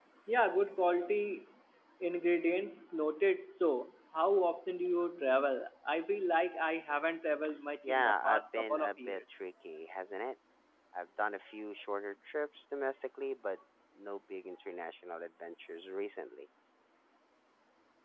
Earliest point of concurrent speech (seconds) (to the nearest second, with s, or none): 8 s